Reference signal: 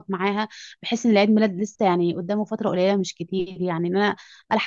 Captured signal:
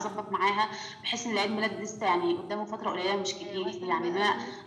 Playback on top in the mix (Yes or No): Yes